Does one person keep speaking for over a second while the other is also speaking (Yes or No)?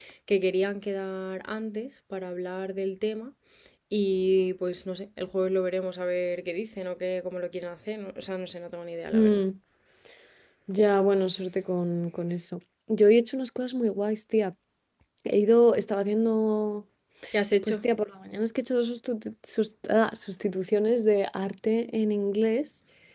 No